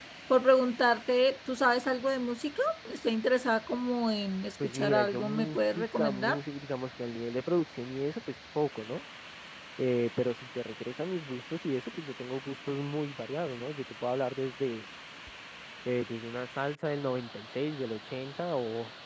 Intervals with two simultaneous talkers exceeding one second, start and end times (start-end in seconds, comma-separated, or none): 4.6-6.4